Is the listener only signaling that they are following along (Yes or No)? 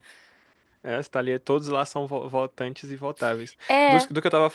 Yes